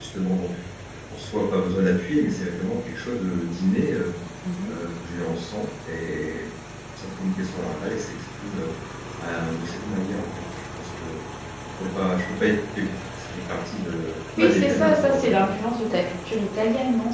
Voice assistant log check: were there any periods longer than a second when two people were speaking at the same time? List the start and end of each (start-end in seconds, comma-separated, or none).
14.4-15.7